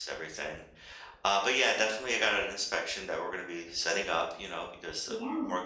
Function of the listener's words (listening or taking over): listening